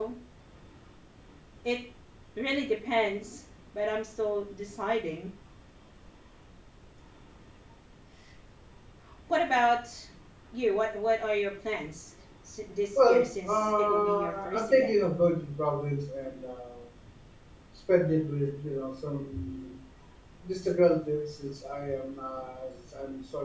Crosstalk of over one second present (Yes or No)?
Yes